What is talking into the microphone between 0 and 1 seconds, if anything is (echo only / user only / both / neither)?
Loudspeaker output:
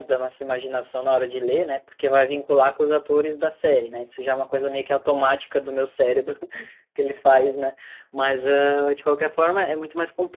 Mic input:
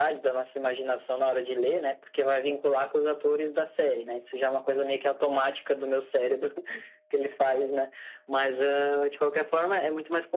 echo only